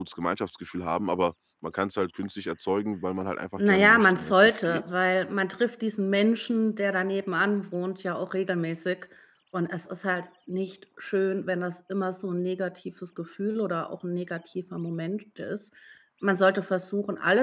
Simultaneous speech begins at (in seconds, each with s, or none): 3.6 s